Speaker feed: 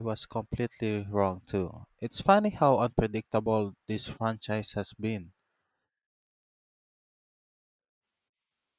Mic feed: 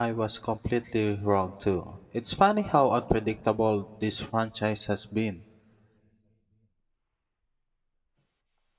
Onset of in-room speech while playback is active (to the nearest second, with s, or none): none